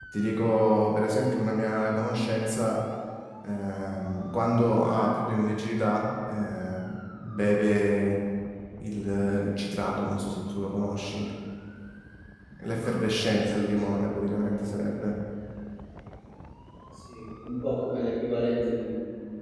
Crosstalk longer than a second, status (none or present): present